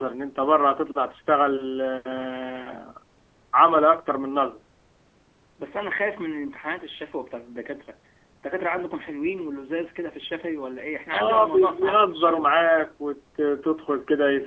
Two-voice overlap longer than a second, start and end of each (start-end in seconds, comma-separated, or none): 11.1-12.6